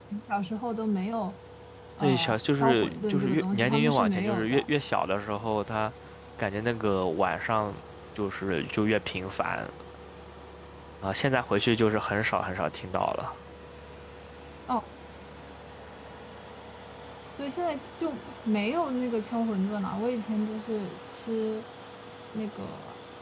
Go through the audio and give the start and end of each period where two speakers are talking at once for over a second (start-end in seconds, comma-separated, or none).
2.0-4.7